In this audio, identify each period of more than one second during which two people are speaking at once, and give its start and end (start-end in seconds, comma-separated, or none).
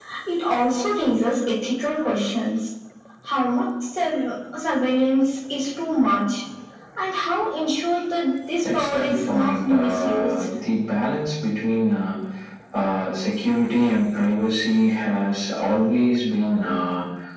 8.7-10.3